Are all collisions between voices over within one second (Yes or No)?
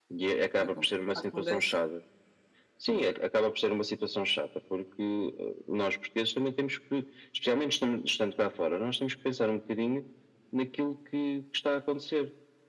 No